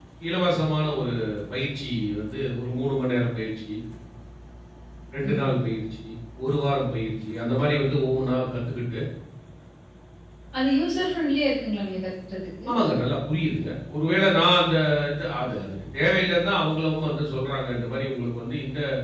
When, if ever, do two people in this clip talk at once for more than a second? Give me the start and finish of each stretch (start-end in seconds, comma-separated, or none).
none